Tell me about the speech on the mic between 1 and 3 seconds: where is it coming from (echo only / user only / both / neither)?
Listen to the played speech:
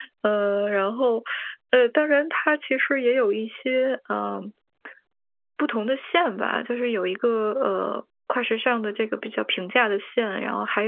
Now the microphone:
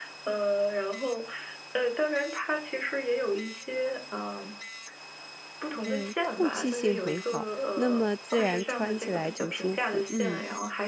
echo only